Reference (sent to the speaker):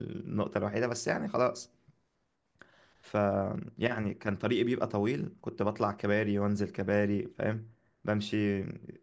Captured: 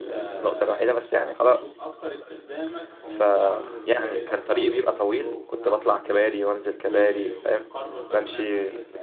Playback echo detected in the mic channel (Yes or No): Yes